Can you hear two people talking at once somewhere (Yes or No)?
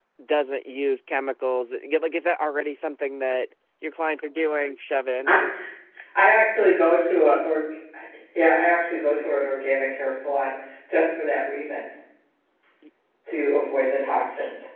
No